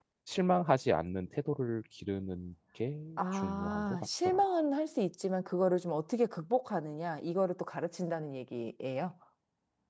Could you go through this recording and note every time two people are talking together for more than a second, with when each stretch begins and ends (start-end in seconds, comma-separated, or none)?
3.2-4.4